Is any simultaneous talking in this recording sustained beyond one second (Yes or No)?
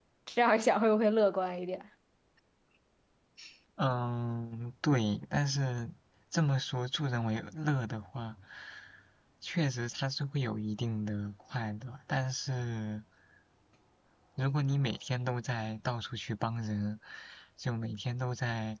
No